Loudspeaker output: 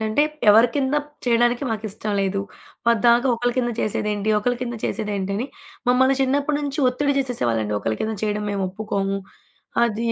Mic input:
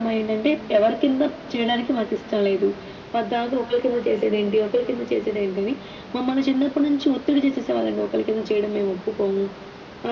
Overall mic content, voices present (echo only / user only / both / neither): echo only